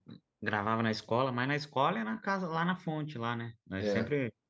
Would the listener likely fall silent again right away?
No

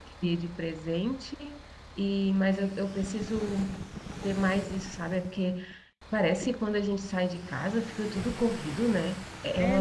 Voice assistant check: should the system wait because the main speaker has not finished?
No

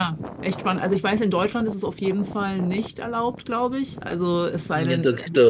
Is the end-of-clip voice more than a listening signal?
Yes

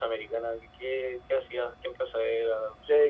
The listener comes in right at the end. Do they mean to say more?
Yes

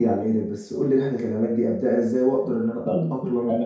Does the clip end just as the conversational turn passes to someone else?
Yes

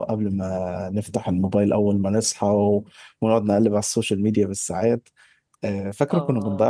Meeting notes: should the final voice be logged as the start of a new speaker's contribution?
No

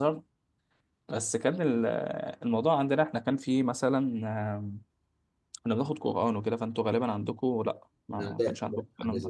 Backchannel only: No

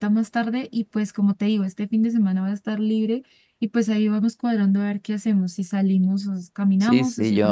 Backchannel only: No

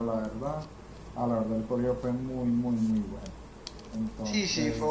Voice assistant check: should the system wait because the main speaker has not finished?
No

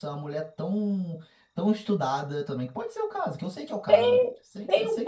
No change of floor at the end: No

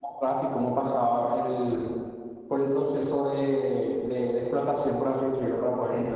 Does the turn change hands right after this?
Yes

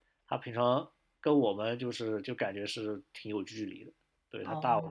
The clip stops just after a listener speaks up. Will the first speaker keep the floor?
Yes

